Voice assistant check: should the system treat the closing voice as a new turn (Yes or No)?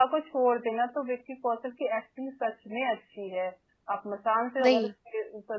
No